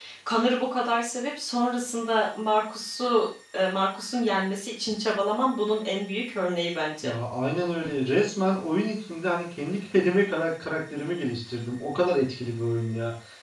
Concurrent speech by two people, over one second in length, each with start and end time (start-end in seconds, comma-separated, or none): none